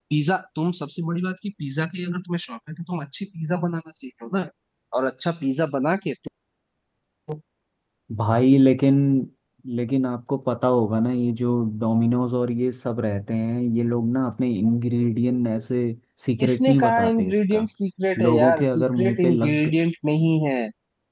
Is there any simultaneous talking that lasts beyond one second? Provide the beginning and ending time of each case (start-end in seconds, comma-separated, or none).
16.4-17.7, 18.3-19.7